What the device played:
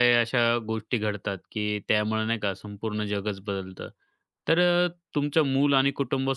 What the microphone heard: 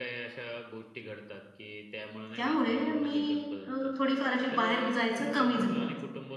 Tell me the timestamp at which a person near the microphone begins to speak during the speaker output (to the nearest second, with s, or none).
2 s